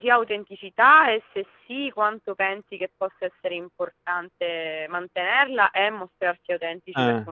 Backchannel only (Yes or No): No